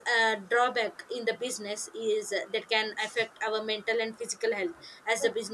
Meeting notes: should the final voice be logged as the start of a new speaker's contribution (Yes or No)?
No